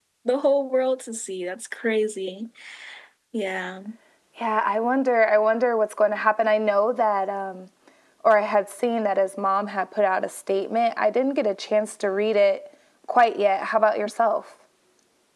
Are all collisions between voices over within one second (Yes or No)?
Yes